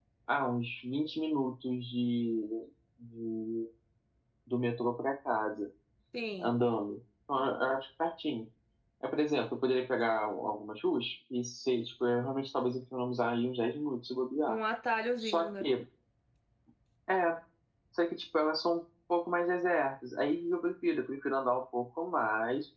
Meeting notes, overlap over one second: none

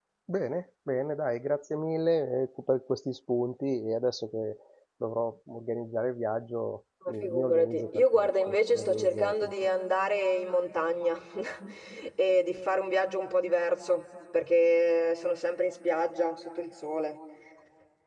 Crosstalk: present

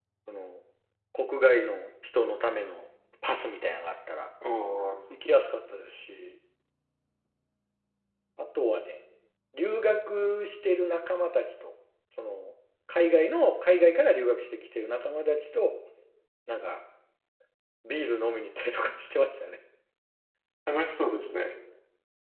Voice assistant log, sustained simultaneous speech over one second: none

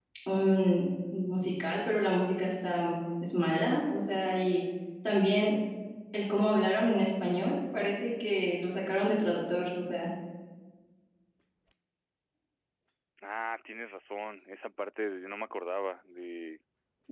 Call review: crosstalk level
none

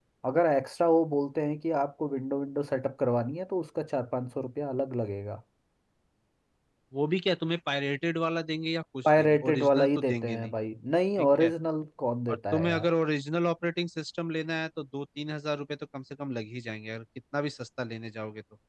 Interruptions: present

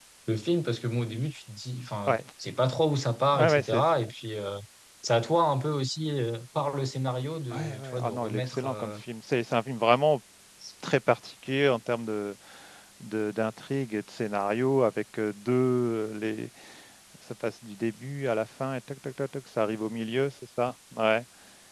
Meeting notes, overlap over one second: present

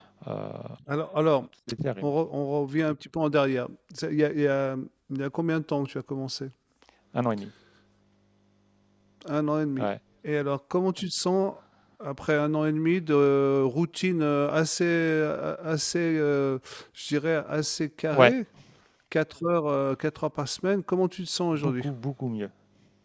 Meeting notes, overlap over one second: none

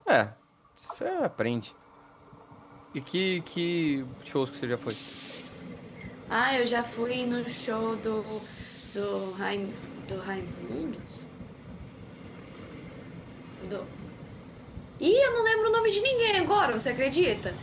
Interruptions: none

